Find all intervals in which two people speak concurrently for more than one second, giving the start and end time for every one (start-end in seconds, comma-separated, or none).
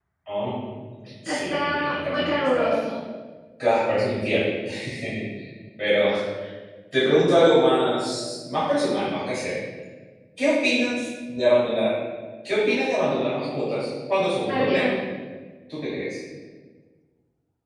1.3-2.7